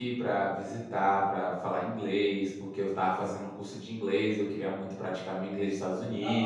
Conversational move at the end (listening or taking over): taking over